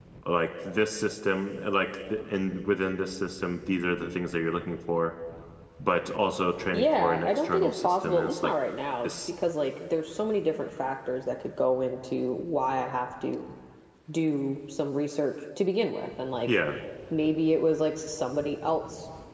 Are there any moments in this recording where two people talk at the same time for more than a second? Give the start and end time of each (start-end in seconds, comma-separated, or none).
6.7-8.5